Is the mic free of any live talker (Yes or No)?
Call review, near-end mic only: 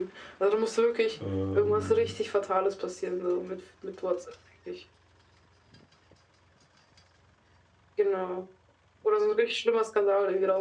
No